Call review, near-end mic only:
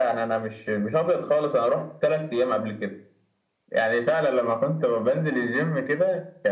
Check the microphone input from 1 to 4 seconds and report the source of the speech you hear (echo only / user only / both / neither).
echo only